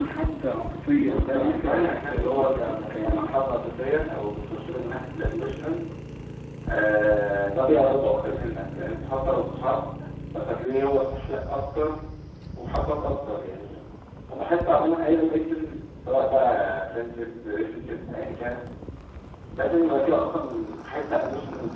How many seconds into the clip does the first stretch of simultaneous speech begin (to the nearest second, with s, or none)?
1 s